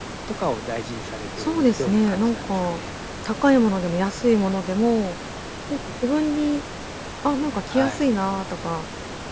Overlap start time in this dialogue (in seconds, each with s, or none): 1.4 s